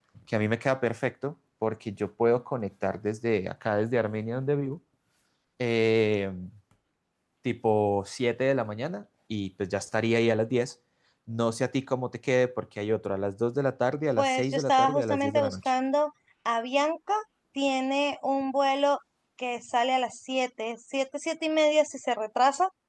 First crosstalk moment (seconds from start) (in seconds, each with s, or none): 14.2 s